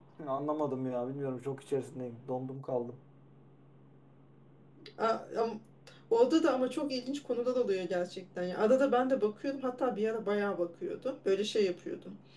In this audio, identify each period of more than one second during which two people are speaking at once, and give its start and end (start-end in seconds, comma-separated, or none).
none